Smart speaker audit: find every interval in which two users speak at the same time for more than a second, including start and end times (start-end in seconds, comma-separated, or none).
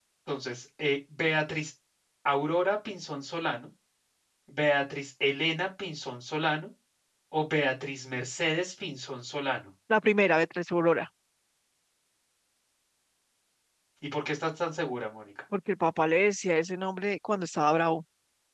none